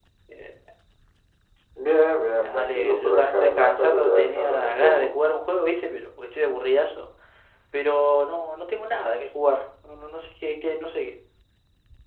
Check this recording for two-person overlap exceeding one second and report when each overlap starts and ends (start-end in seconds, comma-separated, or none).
2.4-4.9